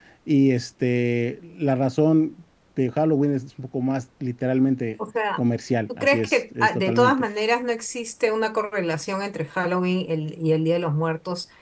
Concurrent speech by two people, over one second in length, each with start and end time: 6.0-7.2

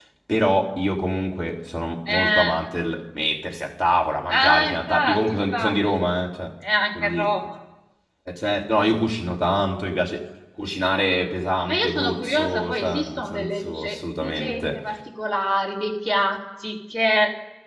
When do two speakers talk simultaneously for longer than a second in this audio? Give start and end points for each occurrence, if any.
4.3-6.0, 11.7-14.8

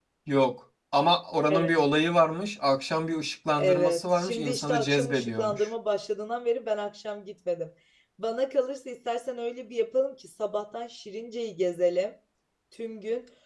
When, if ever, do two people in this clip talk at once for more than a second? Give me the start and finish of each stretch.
3.5-5.7

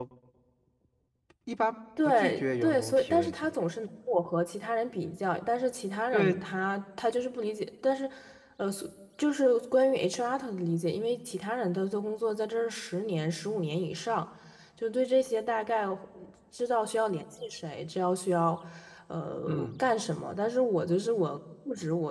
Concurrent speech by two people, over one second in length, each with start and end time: 2.0-3.5

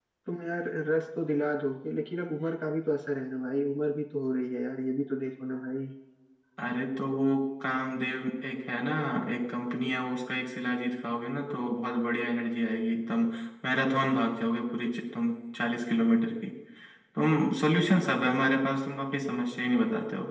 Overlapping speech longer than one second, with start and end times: none

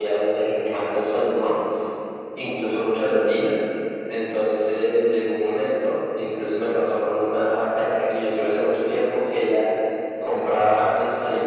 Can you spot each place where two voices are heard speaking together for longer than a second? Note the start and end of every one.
none

